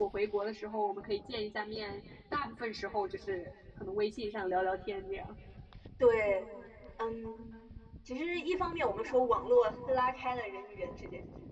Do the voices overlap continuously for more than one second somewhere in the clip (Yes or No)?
No